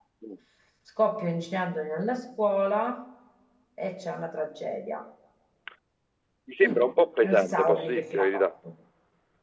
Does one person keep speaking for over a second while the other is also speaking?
Yes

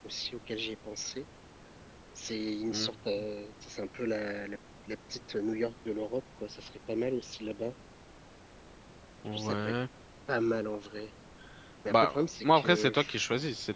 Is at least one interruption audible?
Yes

